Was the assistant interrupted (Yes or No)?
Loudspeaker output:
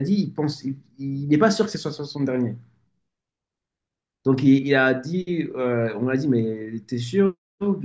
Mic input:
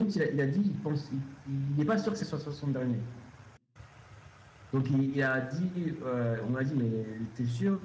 No